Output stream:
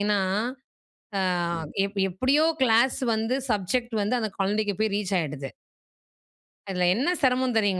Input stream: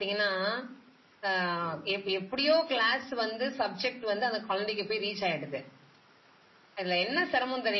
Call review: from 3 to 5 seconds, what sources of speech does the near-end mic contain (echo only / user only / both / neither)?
echo only